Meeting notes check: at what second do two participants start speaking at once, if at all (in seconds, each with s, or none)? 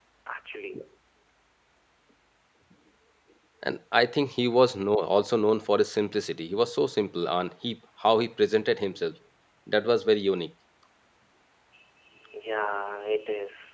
none